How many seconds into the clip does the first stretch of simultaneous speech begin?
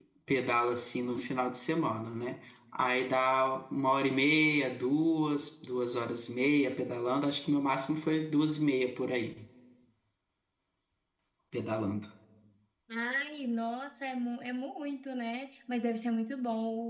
none

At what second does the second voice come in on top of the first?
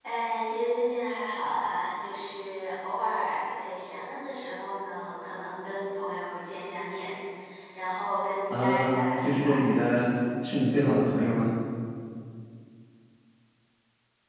8.5 s

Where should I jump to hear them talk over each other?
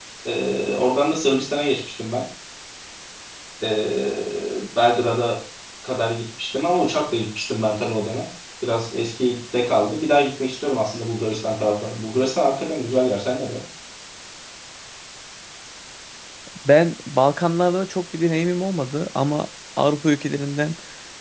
none

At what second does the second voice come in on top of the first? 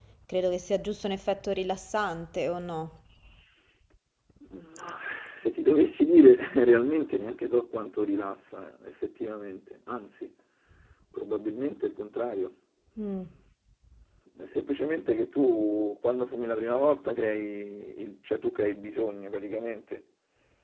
none

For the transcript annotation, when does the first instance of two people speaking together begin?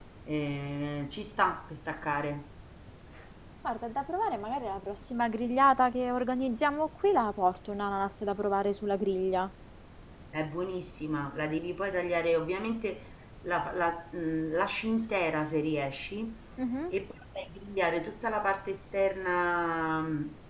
none

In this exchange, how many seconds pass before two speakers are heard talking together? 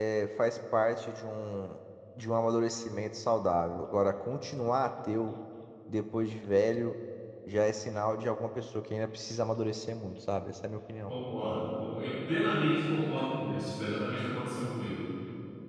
none

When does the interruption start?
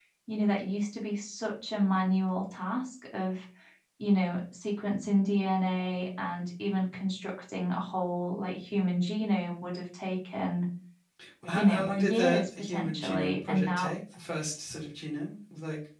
11.6 s

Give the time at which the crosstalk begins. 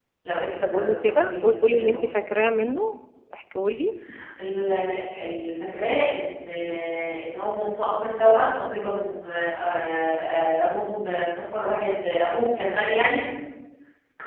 0.6 s

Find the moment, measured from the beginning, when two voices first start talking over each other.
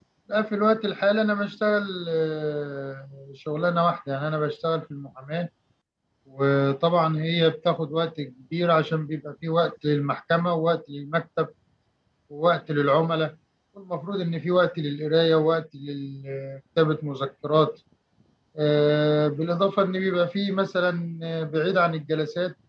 none

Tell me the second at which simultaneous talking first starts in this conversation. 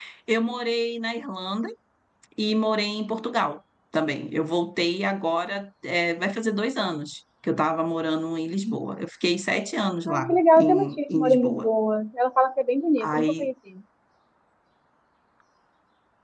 10.1 s

